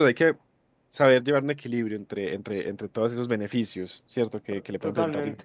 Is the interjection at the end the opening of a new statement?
Yes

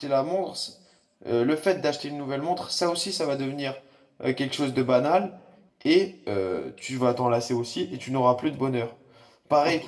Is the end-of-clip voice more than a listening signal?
Yes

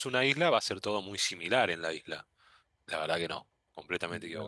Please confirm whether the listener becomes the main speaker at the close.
No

